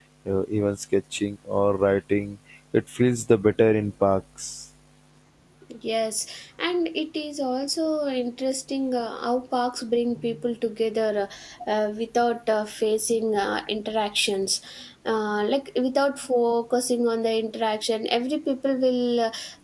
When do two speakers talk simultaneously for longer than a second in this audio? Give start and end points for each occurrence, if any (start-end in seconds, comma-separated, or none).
none